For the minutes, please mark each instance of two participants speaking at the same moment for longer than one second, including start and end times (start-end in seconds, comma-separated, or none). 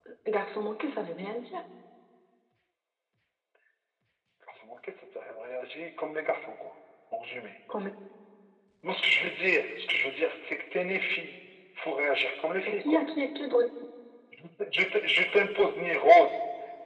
none